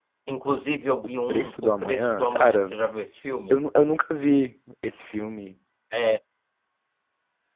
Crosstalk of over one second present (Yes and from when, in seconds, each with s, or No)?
Yes, from 1.3 s